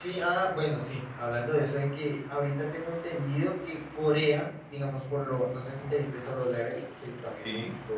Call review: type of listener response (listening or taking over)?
listening